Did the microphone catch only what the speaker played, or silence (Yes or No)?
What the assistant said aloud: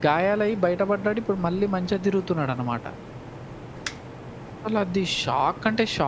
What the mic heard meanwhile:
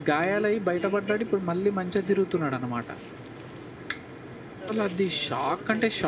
No